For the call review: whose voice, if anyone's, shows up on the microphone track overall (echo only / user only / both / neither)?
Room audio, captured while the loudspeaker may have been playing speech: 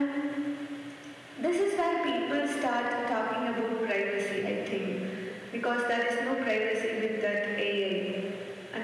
echo only